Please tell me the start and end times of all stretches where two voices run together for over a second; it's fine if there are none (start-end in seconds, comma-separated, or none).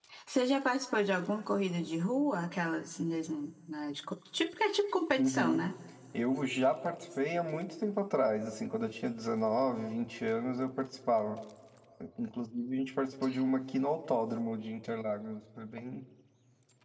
none